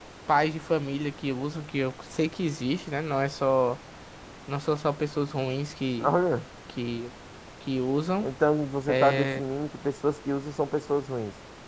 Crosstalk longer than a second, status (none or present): none